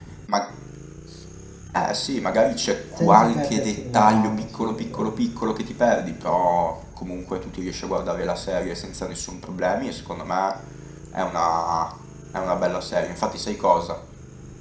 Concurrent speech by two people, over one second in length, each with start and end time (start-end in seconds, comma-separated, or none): 3.0-5.1